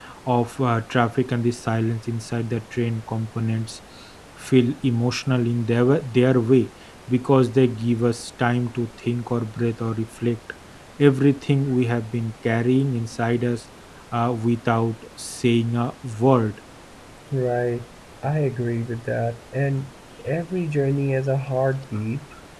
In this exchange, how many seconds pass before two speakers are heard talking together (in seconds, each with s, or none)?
none